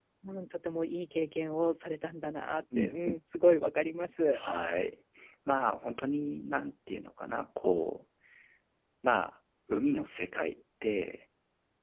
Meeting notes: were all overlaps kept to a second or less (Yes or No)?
Yes